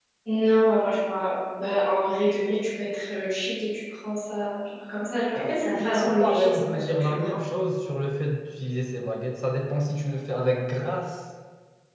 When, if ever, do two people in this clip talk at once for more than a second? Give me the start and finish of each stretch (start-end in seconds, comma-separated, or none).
5.3-7.4